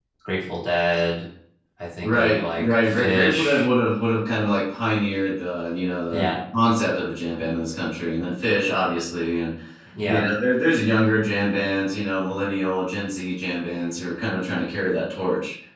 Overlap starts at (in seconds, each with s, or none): 2.0 s